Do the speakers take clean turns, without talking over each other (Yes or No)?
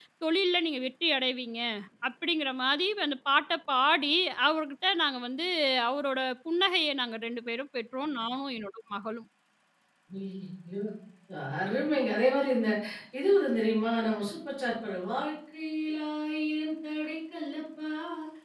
Yes